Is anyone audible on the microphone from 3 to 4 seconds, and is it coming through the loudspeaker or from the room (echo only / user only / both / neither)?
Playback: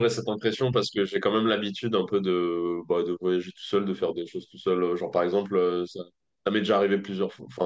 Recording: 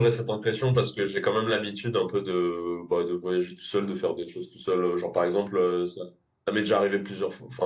echo only